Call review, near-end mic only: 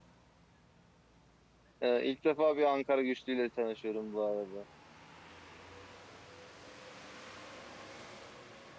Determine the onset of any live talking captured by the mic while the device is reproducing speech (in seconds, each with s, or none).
1.8 s